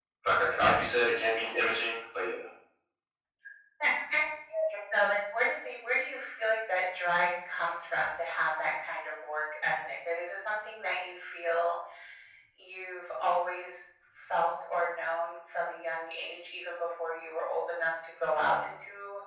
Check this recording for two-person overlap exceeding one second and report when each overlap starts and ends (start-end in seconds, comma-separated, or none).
none